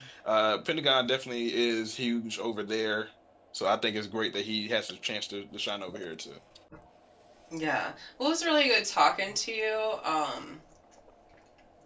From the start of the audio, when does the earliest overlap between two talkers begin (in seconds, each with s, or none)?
none